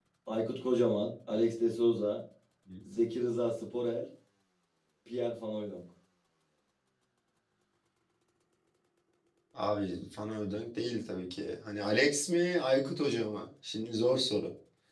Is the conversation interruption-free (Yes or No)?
Yes